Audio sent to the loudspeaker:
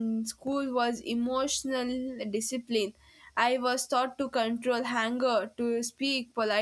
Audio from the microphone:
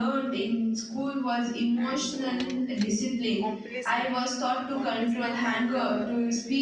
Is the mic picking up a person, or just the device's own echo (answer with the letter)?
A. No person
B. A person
B